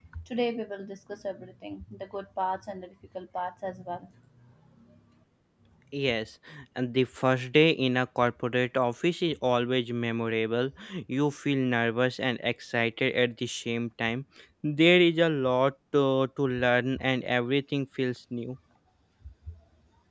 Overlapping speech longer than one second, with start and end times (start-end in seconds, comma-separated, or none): none